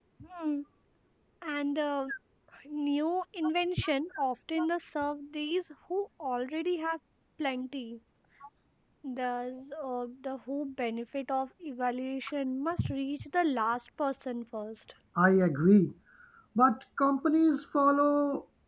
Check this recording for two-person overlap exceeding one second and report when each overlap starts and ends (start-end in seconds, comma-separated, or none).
none